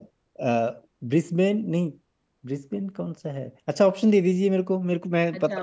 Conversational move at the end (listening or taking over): taking over